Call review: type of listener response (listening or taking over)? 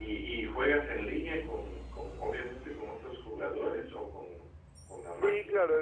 taking over